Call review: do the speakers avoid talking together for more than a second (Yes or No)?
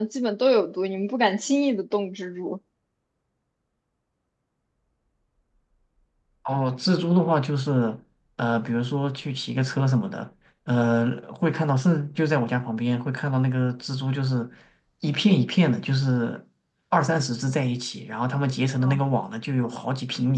Yes